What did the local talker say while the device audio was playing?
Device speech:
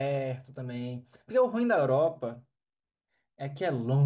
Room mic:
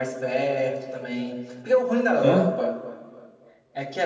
Hã?

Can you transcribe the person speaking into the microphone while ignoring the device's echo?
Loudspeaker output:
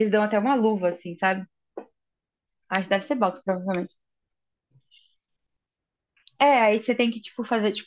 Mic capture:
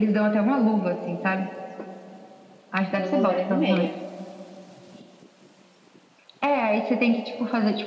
umas duas horas e meia.

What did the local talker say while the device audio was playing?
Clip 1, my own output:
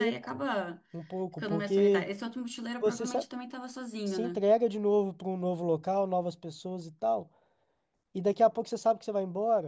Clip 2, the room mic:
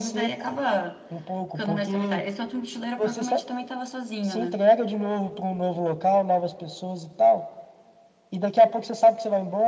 none

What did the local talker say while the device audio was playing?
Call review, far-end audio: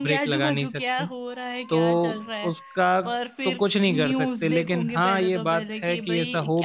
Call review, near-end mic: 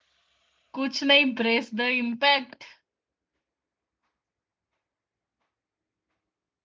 कुछ नहीं ब्रेस द इम्पैक्ट

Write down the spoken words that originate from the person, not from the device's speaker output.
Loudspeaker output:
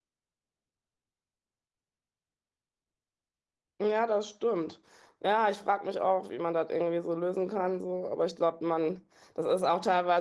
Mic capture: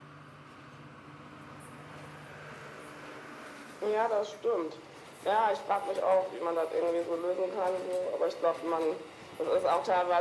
none

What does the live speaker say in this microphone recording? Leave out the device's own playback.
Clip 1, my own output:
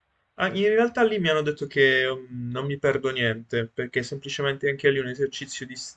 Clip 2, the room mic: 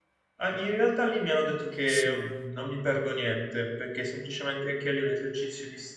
sì.

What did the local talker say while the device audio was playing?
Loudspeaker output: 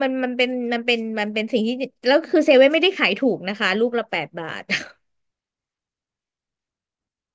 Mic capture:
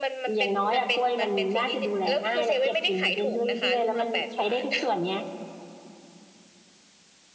อย่างน้อยอะกล้วยมันน่าจะดูแลง่ายและเก็บกินไปได้เรื่อยๆแล้วมันใช้ได้ทุกส่วนเนี้ย

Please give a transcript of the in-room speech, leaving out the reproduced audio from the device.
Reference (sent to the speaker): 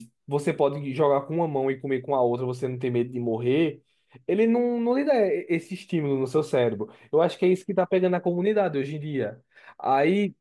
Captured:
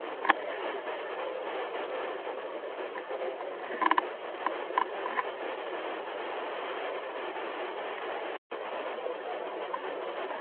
none

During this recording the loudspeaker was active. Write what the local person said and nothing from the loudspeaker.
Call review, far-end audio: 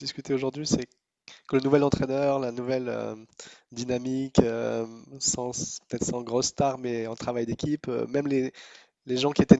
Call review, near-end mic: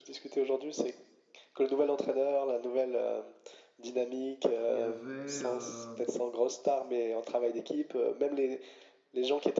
Il y avait, euh,

